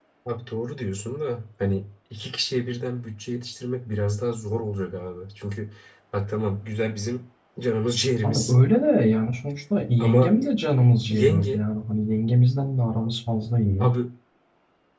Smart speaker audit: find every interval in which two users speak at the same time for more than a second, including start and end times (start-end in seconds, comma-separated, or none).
none